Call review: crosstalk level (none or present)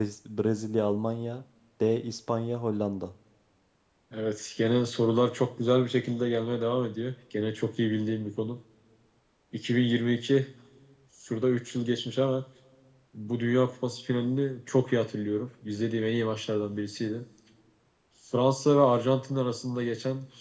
none